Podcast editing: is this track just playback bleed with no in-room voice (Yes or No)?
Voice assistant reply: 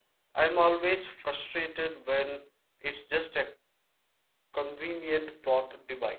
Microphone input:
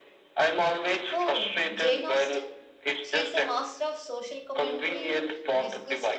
No